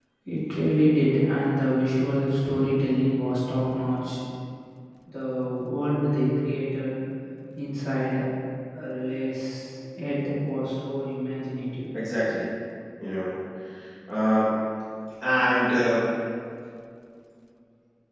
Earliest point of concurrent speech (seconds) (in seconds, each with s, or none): none